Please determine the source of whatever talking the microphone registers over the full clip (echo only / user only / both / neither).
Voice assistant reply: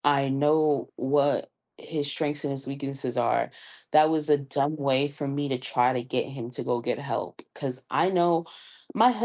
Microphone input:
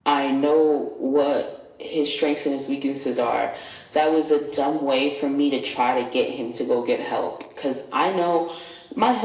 echo only